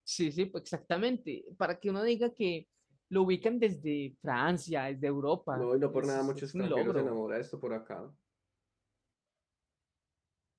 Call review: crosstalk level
present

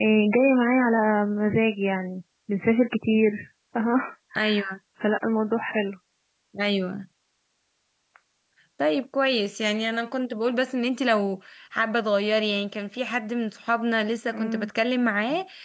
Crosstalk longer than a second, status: none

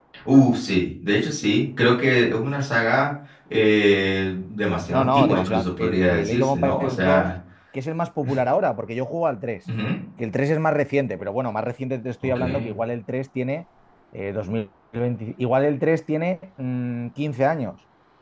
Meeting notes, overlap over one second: present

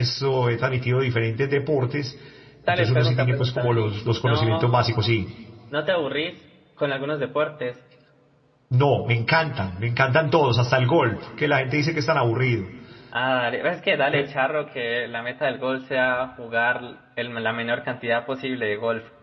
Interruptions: present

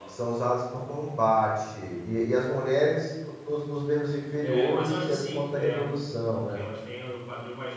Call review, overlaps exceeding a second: present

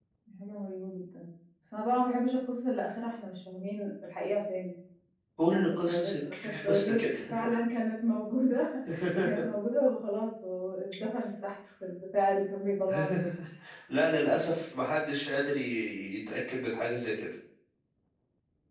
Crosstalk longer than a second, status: present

